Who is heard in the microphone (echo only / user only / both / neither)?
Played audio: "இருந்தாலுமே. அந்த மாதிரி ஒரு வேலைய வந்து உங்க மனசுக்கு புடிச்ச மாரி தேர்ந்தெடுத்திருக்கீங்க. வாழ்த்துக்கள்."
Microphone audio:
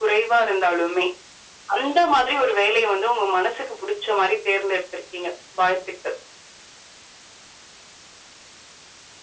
echo only